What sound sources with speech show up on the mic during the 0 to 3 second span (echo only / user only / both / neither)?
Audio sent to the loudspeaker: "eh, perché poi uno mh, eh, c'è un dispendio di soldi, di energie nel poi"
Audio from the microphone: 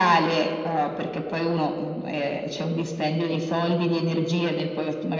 echo only